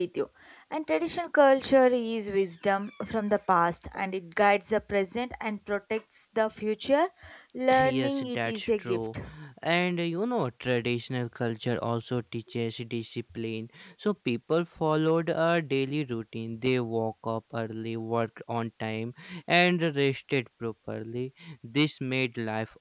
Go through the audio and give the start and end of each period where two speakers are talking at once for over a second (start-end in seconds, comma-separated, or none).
7.8-9.1